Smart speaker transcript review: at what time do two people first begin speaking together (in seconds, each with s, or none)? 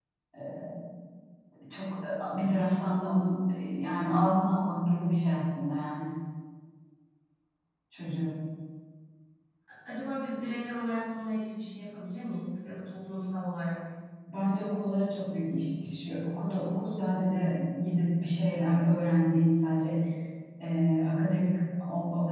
none